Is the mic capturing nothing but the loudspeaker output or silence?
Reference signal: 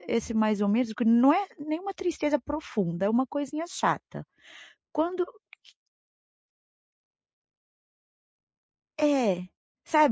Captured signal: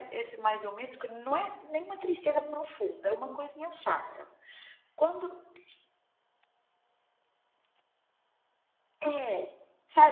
Yes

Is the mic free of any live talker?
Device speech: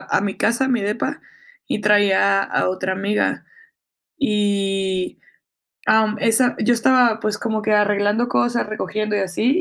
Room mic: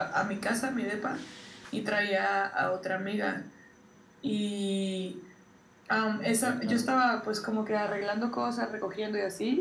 No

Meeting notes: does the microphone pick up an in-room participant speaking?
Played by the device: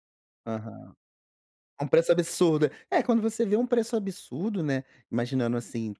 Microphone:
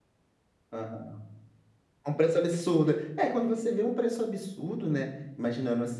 No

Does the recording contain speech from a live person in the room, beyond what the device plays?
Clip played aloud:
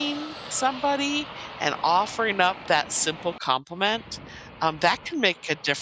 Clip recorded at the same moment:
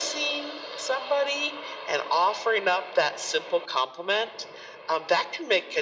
No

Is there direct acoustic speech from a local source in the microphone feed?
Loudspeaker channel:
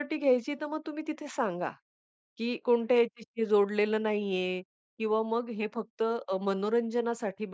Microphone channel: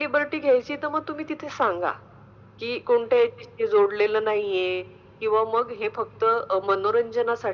No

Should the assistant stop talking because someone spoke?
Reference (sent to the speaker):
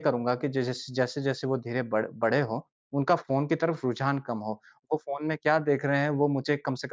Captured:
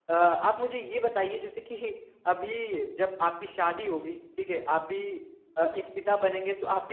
Yes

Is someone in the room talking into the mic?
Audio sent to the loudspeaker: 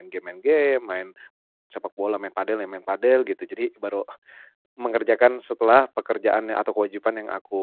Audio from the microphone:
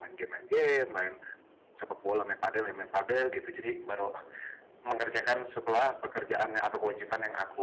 No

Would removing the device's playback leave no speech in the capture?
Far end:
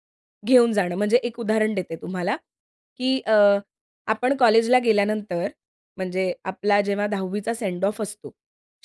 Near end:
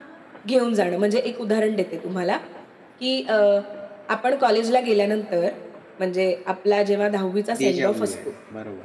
No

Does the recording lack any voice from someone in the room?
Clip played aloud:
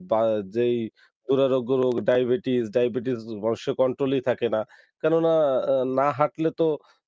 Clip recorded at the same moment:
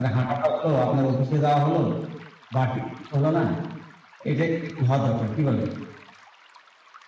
No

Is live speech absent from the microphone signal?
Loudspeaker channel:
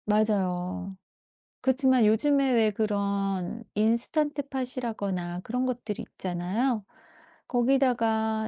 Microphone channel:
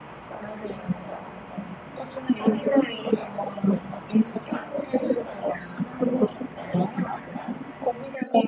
Yes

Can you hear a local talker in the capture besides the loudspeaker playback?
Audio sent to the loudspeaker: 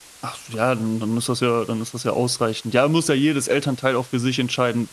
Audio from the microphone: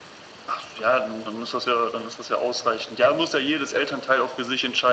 No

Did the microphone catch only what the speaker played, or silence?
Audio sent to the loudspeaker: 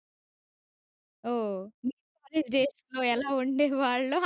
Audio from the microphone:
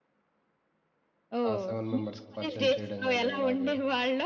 No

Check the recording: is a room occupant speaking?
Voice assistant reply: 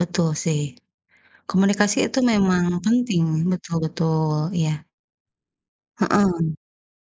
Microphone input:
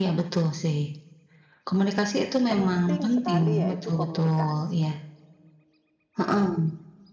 Yes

